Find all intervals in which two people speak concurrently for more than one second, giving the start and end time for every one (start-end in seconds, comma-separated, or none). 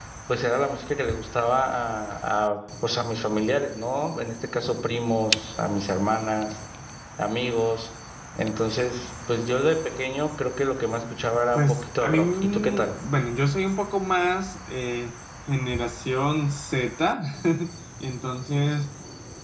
11.5-12.9